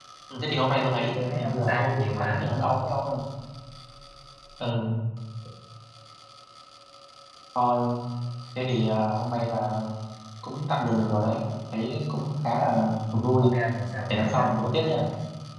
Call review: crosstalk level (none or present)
present